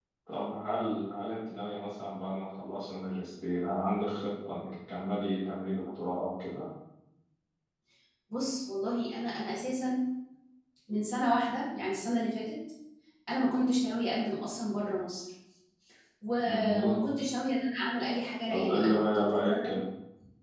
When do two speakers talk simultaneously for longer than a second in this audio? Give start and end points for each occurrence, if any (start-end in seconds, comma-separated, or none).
18.5-19.8